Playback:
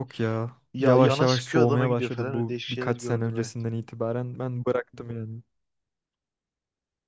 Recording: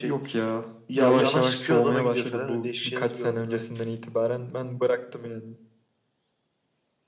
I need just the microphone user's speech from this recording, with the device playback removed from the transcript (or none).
none